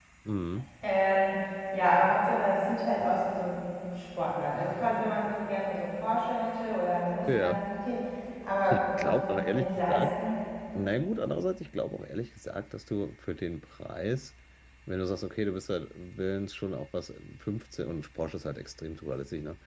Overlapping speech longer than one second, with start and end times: 8.7-10.1

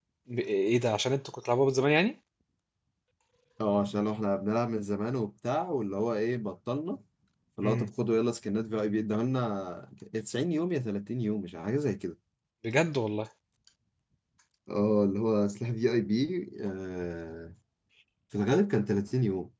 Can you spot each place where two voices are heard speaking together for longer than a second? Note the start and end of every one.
none

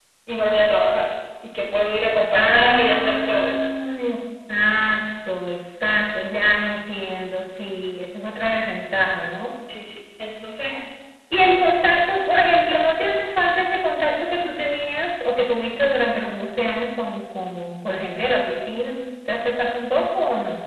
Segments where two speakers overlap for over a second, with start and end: 2.3-3.5

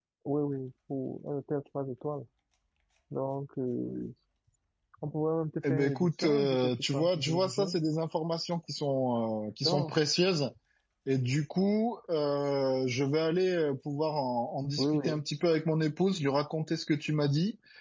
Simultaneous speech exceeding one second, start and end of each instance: 5.7-7.7

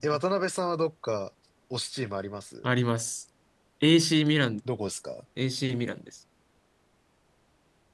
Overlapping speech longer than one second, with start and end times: none

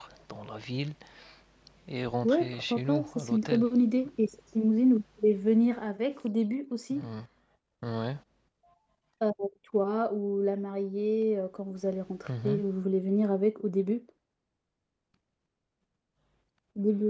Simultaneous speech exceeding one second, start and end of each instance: 2.2-3.6

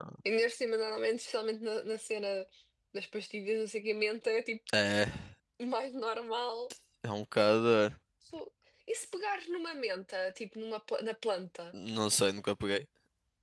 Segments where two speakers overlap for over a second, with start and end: none

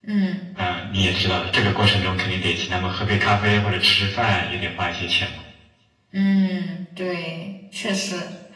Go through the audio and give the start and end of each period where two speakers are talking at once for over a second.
none

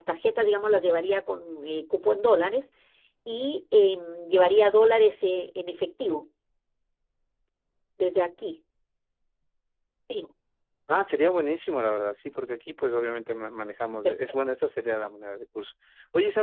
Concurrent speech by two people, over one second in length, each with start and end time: none

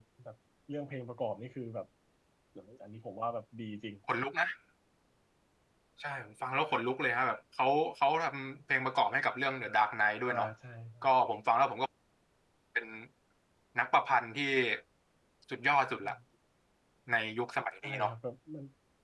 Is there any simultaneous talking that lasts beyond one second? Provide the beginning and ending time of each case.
none

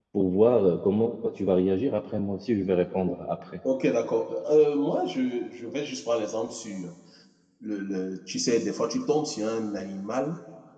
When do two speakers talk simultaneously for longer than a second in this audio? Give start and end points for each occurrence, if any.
none

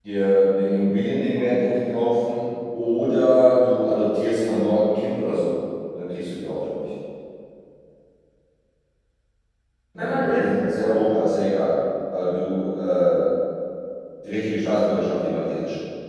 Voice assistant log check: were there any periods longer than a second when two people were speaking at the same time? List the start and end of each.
10.0-11.2

